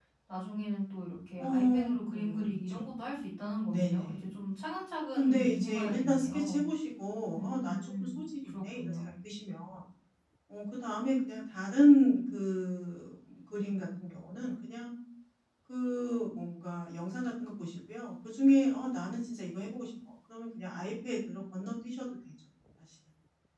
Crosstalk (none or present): present